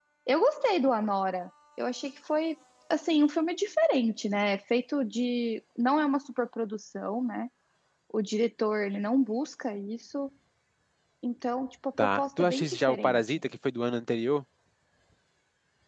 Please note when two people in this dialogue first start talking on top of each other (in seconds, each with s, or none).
12.0 s